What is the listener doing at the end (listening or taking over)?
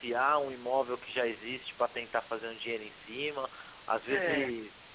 listening